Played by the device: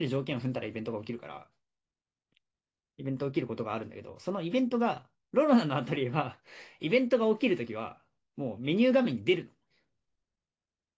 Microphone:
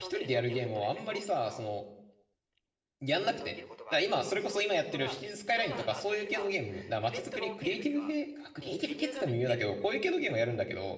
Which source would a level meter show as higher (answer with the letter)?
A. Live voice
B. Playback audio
A